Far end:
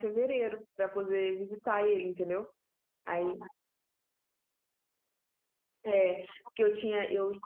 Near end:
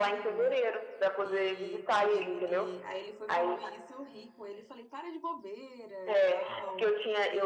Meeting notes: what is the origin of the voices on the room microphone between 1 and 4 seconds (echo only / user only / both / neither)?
both